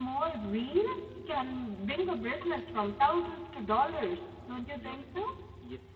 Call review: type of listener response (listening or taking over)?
taking over